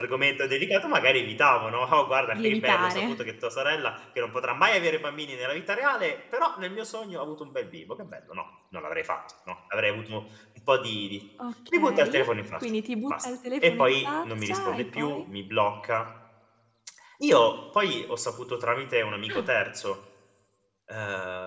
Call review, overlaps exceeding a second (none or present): present